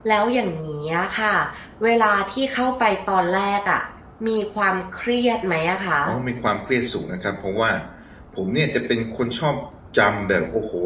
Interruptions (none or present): none